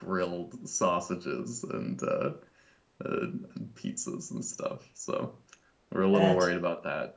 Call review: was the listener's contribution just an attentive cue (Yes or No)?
Yes